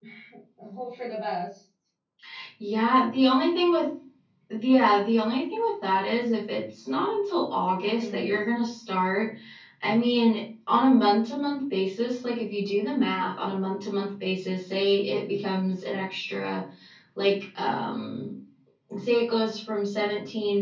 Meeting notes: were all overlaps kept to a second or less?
Yes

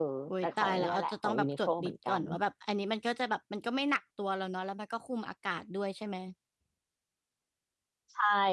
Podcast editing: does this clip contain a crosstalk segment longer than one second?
Yes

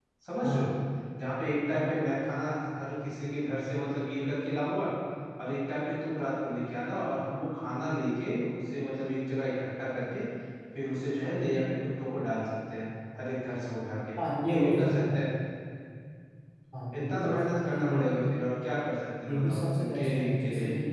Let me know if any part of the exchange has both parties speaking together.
Yes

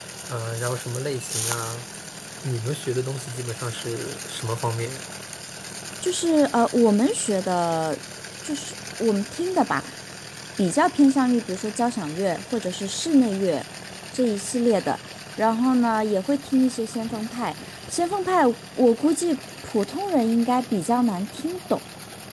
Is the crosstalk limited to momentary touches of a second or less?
Yes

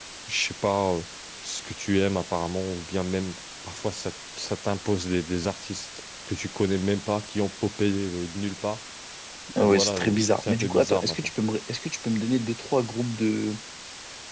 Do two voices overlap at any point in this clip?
Yes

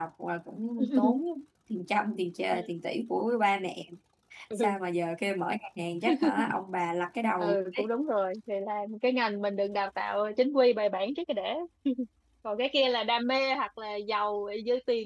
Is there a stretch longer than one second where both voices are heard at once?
No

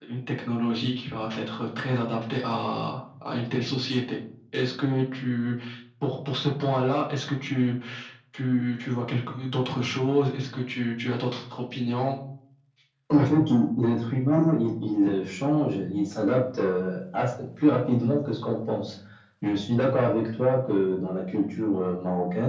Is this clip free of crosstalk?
Yes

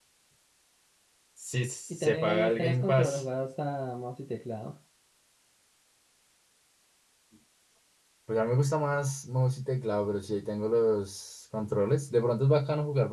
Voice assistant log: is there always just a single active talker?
No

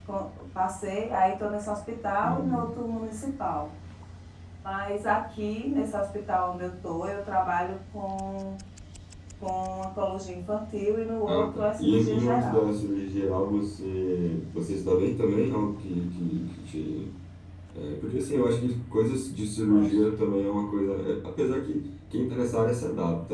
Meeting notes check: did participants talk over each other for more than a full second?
Yes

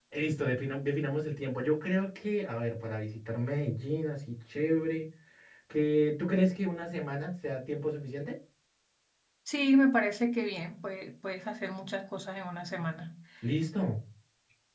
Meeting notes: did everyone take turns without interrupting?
Yes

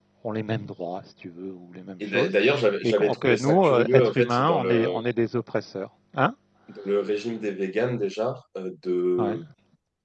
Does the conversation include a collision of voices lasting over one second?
Yes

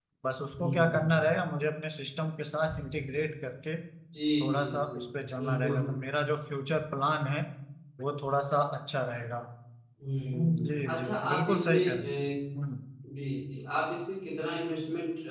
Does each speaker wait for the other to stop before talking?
No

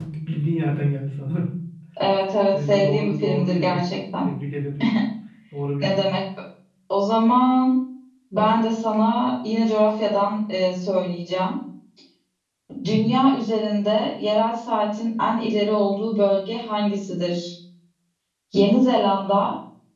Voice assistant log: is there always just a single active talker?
No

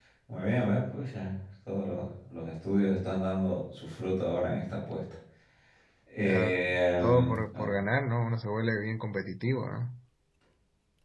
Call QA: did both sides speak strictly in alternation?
No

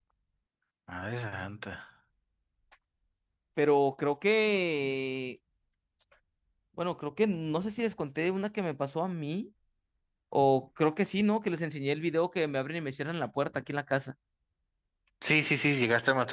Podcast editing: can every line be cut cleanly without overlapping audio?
Yes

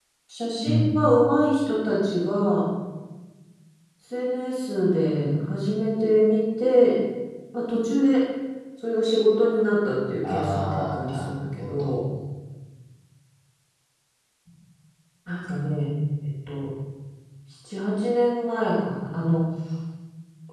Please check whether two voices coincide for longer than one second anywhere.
Yes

